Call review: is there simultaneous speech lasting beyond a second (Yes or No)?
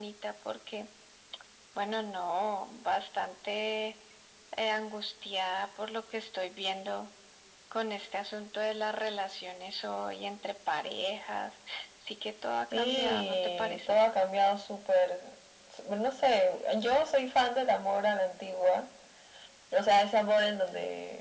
Yes